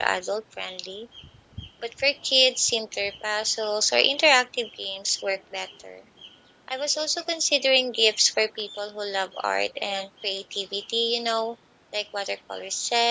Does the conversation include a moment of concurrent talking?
No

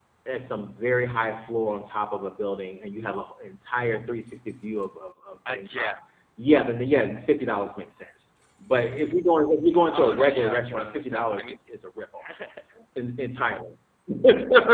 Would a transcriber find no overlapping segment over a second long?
No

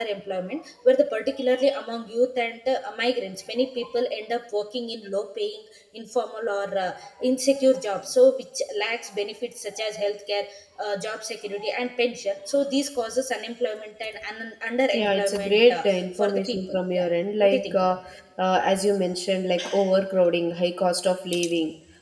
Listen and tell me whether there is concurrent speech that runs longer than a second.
Yes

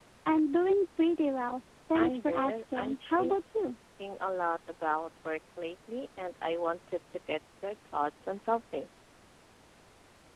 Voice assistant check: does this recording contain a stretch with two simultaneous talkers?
Yes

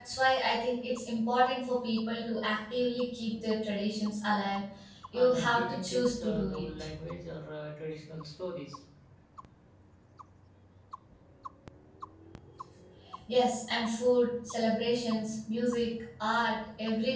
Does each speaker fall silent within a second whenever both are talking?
No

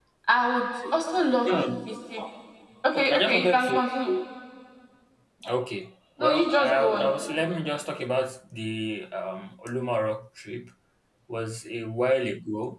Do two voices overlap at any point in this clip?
Yes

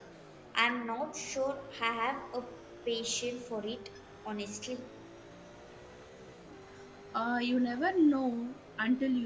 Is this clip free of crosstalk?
Yes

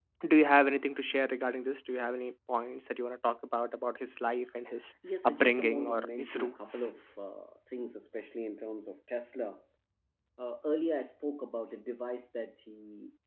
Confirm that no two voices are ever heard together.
No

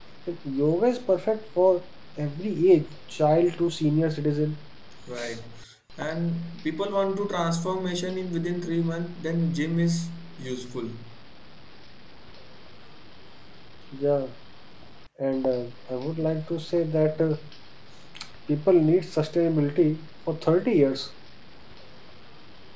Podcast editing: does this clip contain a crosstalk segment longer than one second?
No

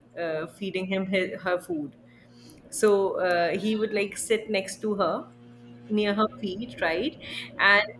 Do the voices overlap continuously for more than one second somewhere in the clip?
No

